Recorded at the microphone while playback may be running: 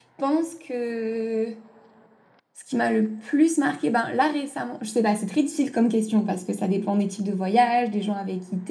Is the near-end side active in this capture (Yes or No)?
Yes